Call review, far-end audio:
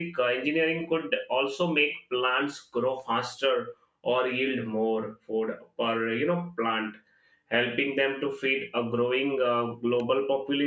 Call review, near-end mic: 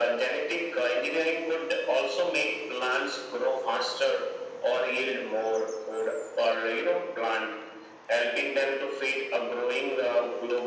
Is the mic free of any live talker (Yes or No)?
Yes